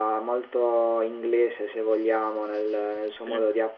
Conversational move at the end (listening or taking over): listening